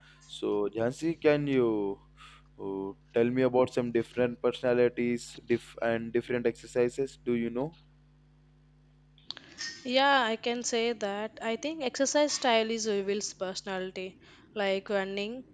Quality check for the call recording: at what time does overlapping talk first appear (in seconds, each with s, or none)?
none